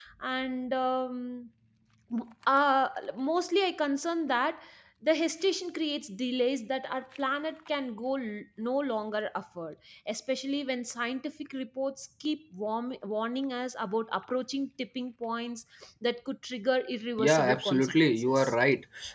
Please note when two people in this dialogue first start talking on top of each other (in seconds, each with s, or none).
17.2 s